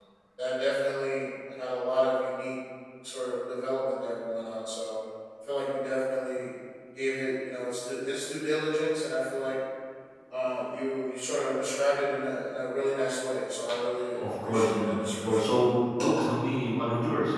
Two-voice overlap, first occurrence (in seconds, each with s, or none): 14.2 s